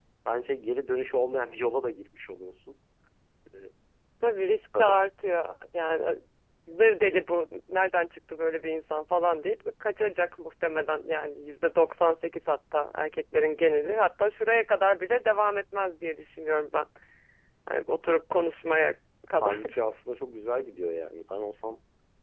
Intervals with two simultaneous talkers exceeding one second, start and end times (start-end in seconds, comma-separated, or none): none